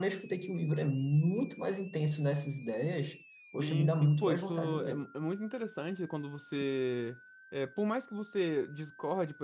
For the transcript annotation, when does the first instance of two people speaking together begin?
3.6 s

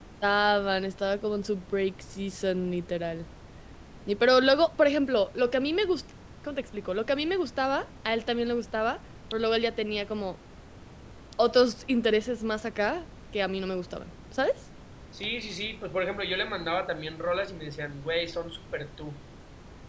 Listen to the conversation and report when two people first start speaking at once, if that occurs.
none

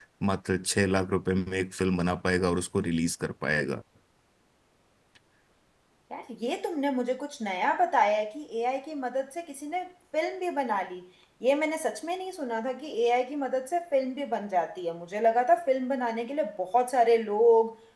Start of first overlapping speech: none

